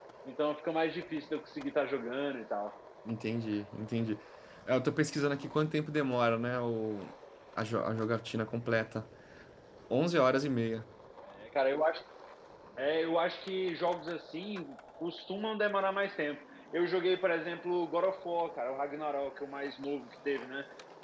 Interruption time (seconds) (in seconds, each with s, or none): none